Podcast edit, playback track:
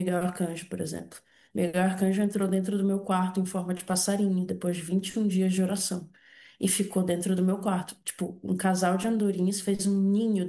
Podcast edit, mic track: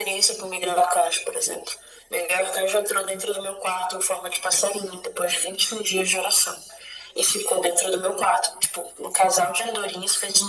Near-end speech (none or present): none